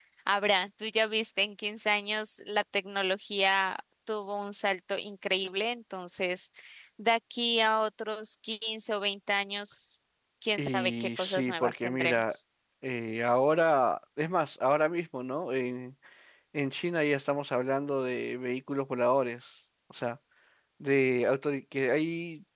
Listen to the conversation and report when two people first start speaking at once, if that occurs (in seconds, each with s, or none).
10.6 s